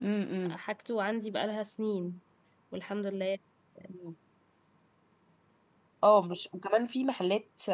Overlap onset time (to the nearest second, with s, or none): none